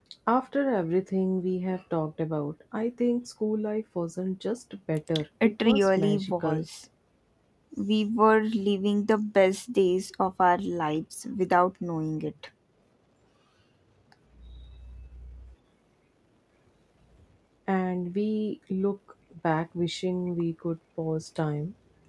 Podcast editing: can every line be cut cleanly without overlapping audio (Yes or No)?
No